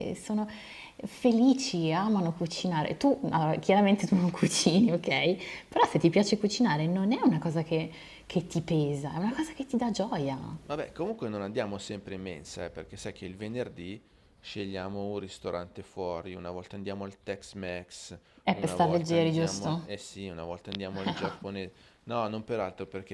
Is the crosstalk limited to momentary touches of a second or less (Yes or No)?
No